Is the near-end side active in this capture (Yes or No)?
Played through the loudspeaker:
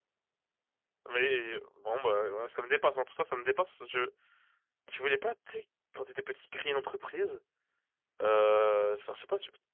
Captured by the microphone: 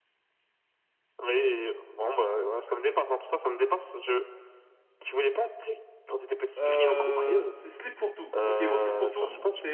Yes